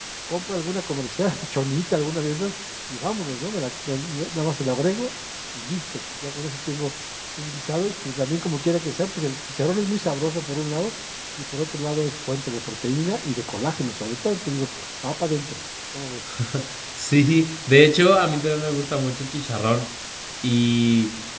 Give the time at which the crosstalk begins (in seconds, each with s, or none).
none